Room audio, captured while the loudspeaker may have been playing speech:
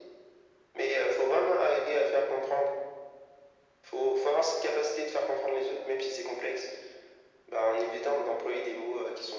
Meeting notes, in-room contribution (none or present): none